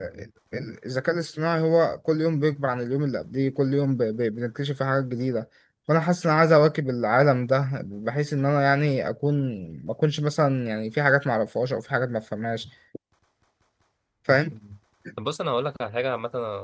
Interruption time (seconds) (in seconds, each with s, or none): none